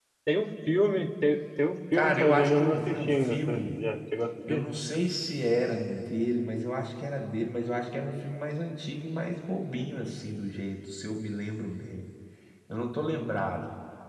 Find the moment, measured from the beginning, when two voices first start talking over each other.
1.9 s

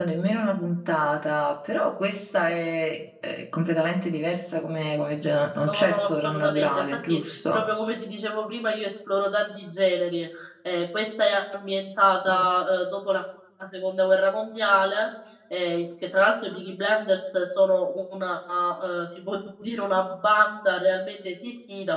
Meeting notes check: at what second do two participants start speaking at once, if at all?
5.6 s

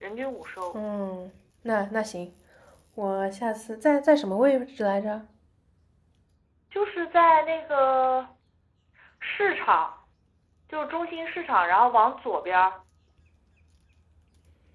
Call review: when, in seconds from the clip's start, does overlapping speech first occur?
none

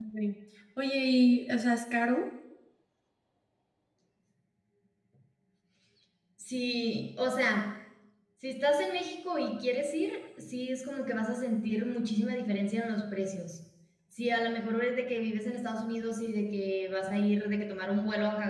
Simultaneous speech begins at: none

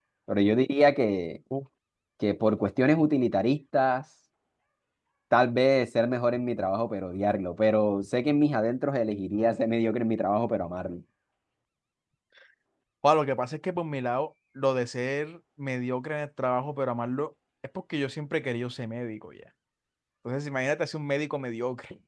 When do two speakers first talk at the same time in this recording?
none

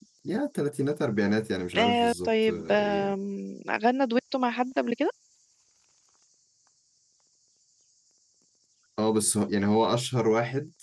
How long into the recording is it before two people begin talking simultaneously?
1.7 s

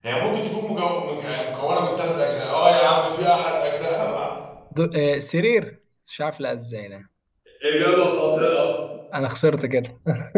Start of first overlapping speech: none

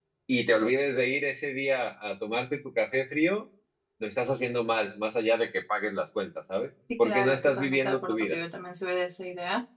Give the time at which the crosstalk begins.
6.9 s

